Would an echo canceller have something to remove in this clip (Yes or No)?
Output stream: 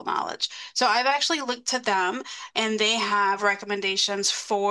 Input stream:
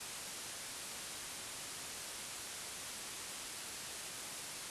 No